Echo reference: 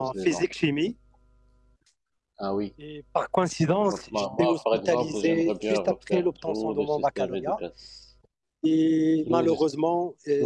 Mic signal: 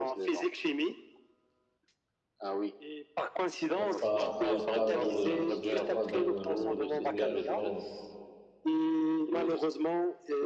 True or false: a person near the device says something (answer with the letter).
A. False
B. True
B